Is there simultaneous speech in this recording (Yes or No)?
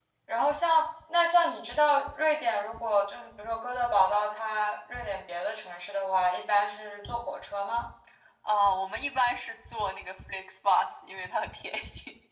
No